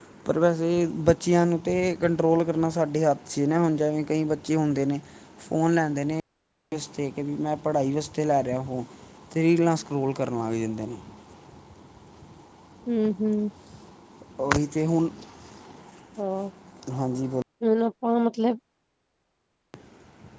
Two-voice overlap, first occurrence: none

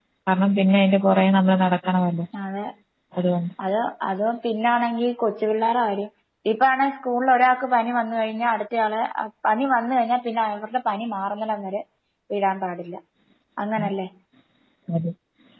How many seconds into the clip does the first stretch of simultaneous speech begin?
none

